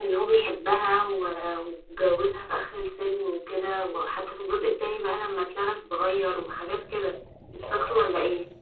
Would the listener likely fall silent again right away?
No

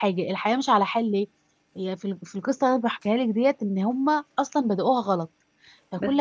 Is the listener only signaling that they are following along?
No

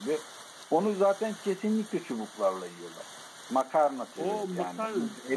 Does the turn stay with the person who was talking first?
No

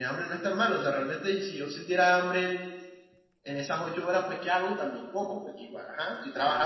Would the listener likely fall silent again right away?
Yes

